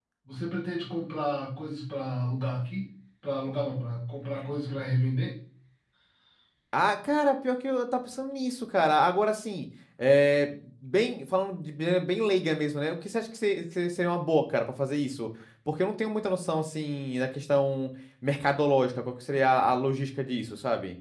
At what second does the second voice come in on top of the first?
none

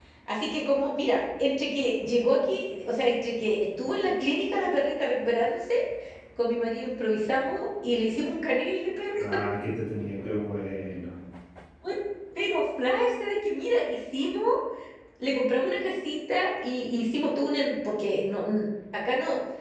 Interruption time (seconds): none

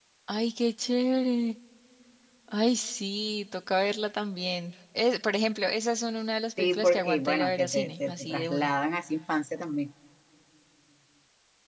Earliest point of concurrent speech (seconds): 6.6 s

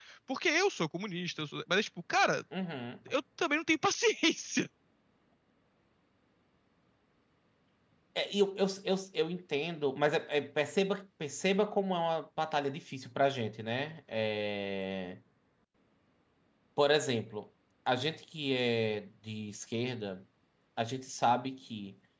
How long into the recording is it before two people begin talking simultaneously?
none

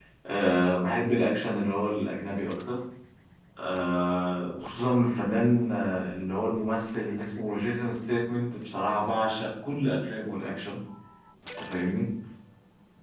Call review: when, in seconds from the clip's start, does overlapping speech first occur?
none

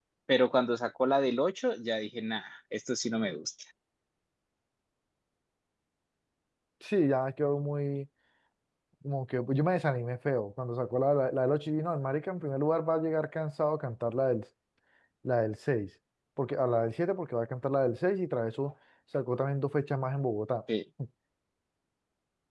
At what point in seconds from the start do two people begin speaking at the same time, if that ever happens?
none

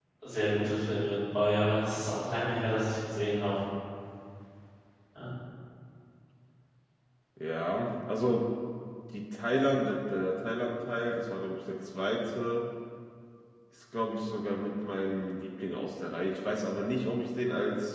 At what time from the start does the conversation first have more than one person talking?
none

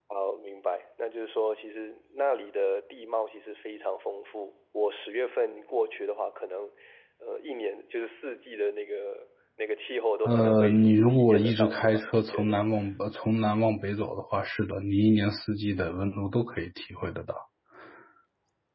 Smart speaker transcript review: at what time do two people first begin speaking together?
10.2 s

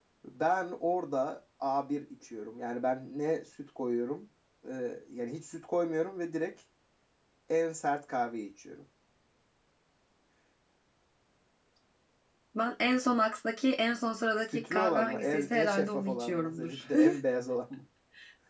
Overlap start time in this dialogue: 14.5 s

